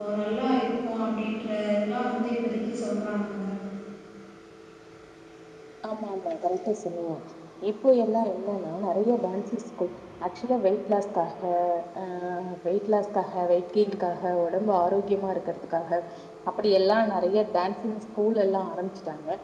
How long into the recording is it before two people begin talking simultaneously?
none

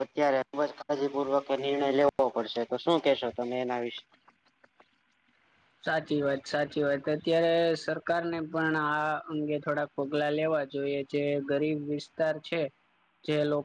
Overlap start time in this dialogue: none

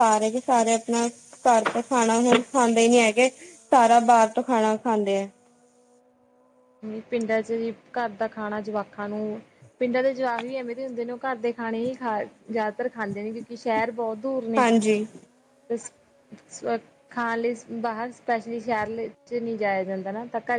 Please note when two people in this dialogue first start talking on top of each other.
none

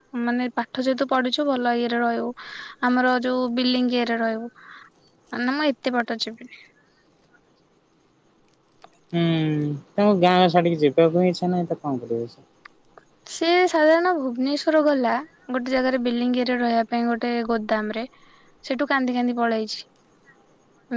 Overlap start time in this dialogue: none

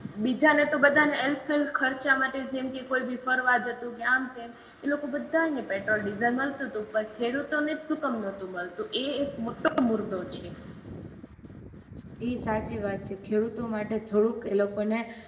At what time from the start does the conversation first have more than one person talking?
none

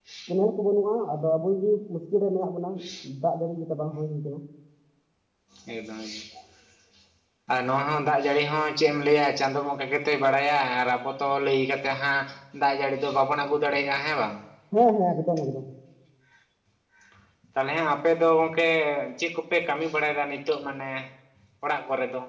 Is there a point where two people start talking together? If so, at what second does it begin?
none

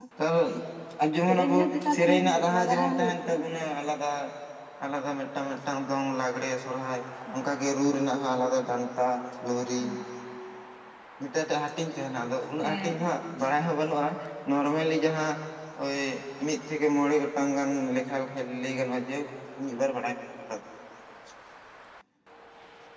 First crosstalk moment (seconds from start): 1 s

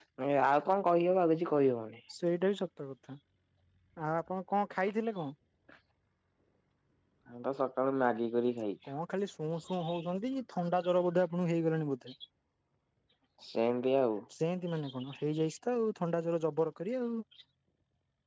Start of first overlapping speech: none

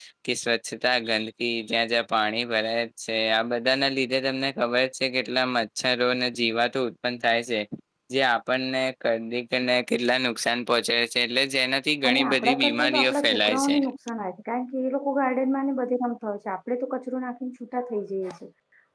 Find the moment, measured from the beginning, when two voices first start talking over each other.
12 s

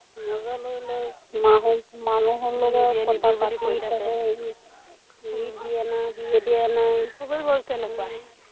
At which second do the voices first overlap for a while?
3 s

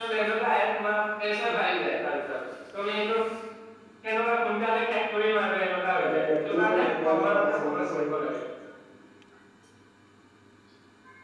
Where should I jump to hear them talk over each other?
6 s

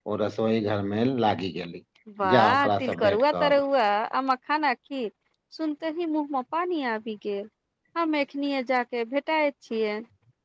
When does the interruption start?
2 s

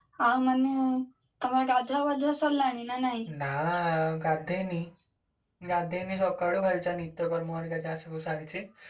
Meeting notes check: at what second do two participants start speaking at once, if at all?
none

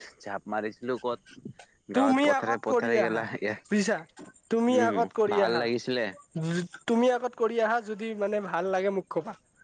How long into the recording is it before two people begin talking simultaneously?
2 s

